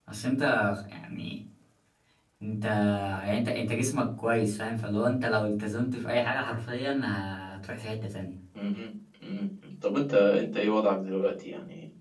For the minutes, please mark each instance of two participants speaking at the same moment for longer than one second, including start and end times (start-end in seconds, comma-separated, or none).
none